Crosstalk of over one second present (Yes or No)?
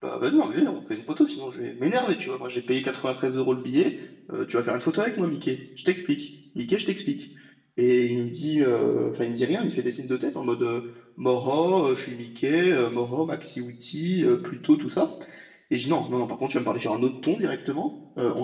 No